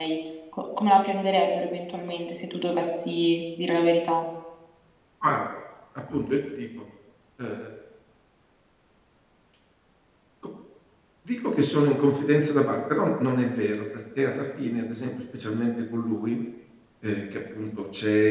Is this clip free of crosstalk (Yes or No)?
Yes